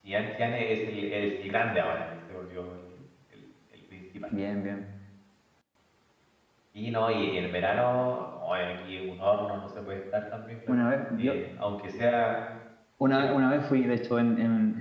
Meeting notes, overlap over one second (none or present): none